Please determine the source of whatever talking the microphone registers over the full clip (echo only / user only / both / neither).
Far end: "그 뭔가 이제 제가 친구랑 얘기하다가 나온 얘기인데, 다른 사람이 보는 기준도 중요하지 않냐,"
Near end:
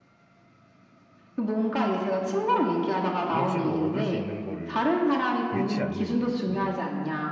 both